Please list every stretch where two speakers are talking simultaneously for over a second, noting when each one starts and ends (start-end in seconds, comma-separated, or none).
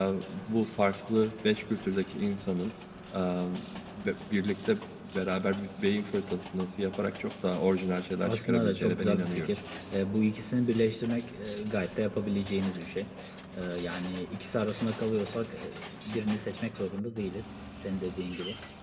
8.2-9.5